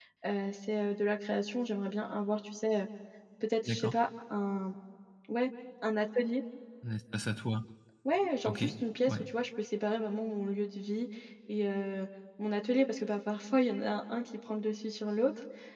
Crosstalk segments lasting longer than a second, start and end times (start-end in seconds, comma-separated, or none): none